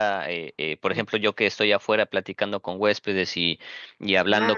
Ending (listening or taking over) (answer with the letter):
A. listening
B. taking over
A